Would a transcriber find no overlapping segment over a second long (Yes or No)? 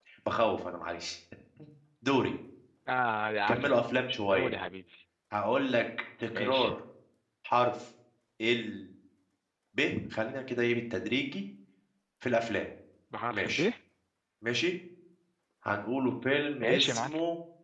Yes